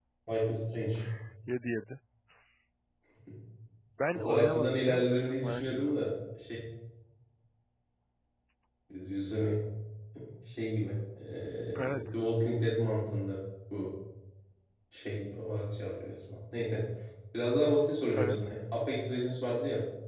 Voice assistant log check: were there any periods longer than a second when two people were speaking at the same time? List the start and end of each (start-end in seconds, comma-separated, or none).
4.2-6.1